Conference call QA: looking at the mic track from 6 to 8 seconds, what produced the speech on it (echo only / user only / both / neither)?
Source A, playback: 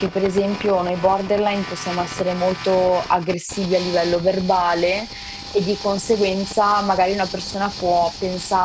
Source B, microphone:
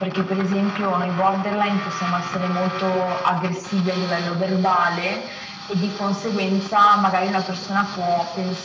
echo only